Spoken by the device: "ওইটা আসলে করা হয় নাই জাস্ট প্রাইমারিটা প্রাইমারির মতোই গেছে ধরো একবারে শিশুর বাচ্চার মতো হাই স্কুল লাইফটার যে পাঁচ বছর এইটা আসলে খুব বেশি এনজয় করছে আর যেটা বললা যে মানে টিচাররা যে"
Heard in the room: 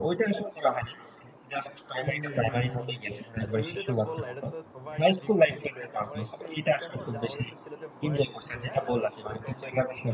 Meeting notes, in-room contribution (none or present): present